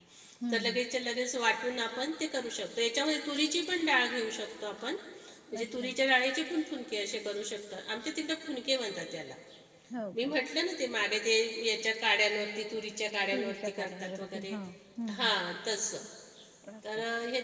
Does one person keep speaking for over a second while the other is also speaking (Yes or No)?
Yes